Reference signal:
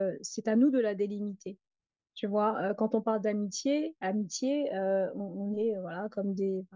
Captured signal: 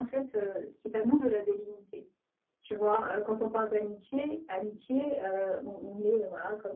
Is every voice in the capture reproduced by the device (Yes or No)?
Yes